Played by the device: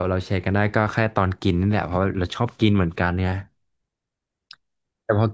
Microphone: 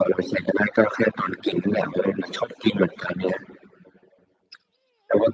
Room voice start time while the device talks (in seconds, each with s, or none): none